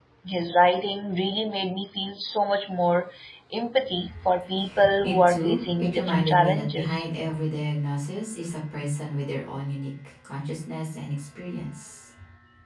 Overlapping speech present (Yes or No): Yes